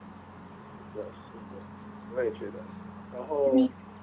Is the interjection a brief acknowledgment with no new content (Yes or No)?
Yes